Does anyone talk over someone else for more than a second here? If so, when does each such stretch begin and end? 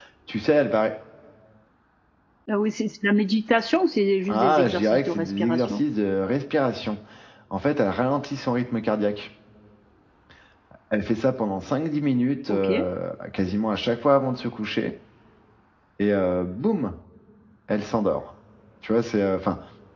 4.3-5.8

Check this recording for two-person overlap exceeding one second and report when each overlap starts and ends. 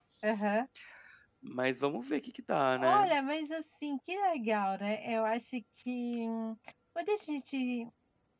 none

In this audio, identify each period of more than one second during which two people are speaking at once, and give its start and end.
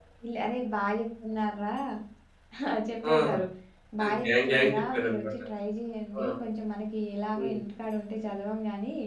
4.0-5.2

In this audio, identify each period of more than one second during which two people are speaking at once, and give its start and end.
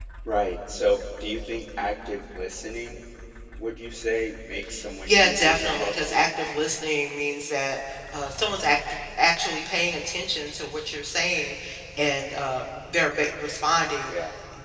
5.1-6.3

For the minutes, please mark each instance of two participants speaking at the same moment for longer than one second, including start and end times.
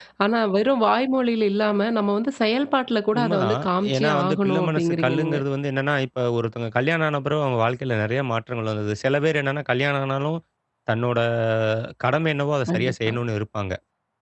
3.2-5.4

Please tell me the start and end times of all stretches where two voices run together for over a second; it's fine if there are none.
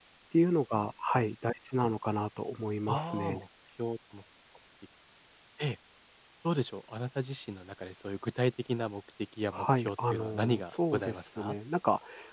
9.5-11.5

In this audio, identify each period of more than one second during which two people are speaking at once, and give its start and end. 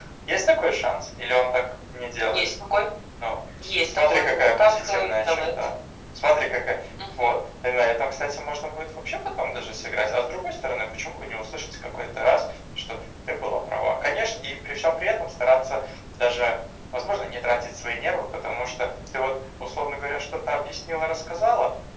3.8-5.5

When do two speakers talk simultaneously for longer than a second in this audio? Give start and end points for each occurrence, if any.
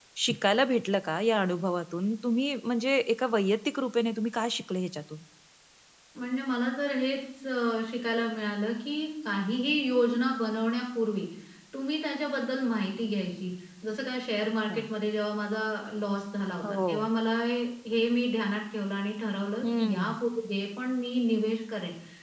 none

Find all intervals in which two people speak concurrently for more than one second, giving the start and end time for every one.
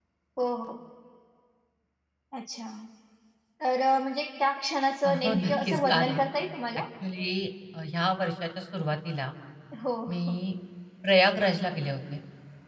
5.0-6.2

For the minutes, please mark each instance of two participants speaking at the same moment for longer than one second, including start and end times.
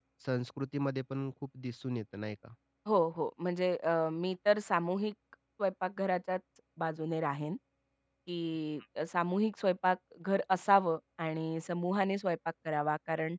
none

